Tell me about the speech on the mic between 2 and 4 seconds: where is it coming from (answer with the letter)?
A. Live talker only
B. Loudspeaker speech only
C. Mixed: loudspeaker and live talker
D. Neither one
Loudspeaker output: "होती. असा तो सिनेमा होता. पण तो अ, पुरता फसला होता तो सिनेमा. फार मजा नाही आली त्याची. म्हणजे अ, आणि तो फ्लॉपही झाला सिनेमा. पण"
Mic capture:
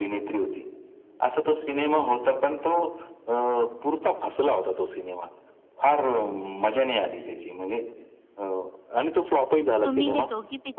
B